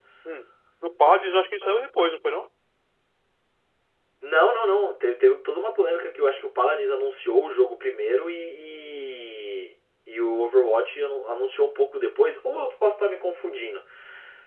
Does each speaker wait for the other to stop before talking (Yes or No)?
Yes